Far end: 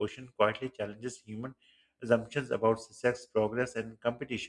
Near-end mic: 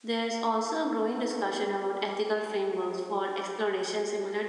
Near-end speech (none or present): present